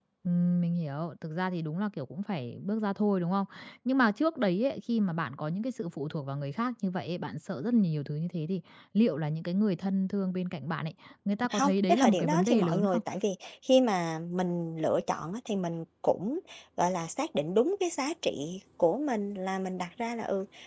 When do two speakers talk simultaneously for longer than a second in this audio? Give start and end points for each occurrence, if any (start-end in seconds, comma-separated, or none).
11.5-13.0